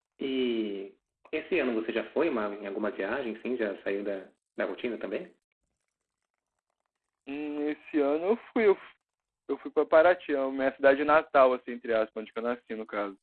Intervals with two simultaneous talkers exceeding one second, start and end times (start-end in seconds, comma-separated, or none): none